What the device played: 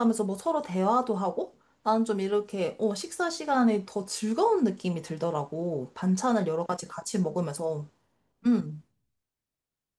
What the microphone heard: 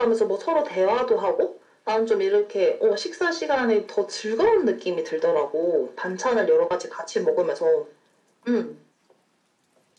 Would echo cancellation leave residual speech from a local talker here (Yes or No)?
No